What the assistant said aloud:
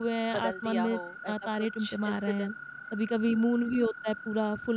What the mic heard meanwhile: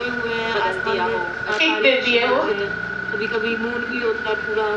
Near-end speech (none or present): present